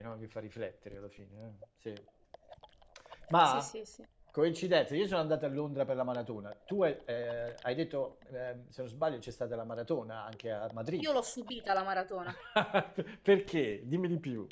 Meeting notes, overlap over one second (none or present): none